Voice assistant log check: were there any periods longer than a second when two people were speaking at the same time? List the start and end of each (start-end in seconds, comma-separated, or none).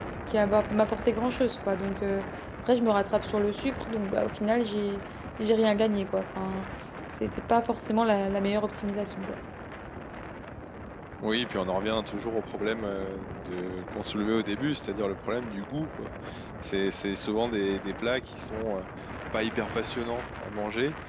none